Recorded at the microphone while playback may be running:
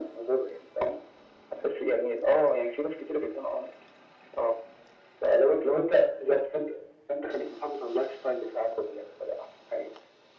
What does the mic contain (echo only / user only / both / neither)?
echo only